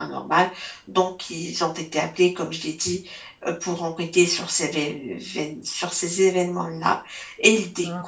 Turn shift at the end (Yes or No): No